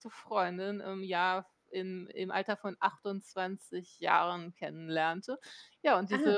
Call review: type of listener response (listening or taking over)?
listening